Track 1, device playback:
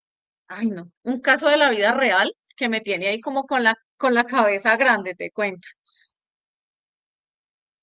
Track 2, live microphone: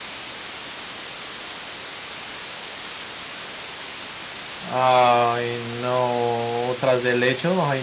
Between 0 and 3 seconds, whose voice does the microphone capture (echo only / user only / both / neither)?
neither